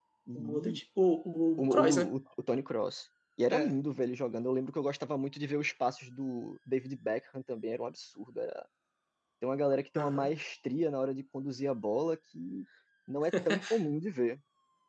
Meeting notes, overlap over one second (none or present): none